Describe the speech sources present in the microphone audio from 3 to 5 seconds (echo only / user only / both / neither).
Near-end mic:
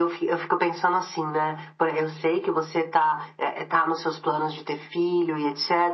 echo only